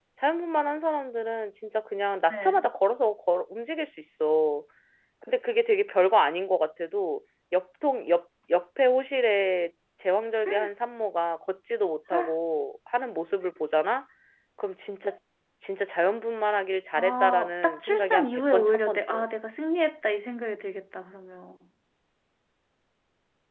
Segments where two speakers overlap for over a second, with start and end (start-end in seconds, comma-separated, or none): 17.0-19.3